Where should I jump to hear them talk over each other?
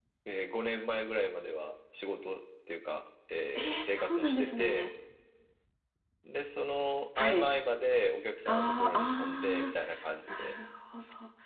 3.5 s

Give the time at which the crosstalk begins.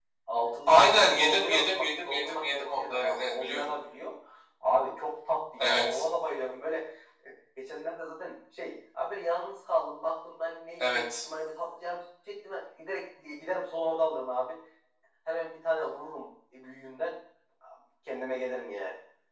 0.7 s

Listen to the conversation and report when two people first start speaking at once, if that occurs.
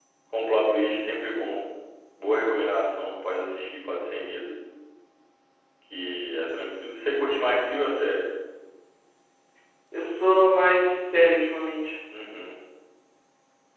none

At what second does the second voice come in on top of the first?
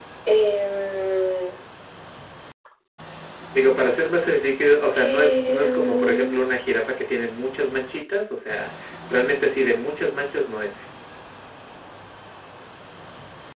4.9 s

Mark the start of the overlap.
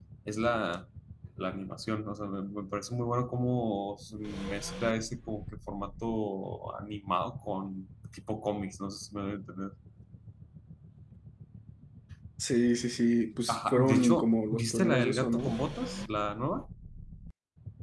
13.5 s

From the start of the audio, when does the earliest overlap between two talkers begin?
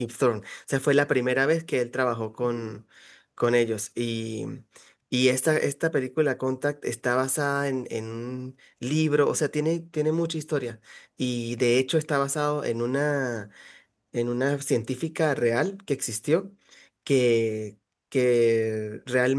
none

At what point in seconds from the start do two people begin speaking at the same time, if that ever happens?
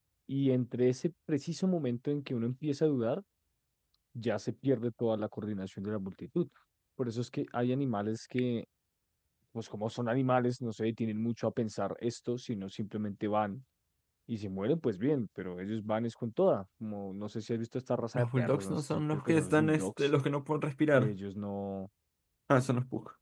18.1 s

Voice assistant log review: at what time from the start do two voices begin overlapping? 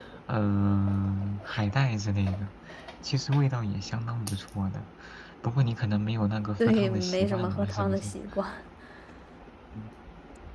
6.6 s

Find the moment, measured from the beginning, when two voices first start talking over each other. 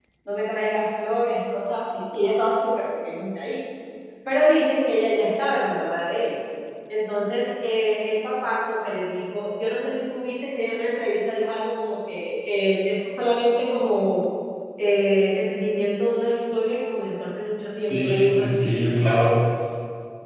17.9 s

